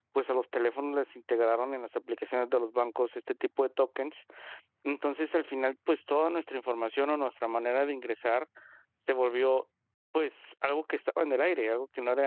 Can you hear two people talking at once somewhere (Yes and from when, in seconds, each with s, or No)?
No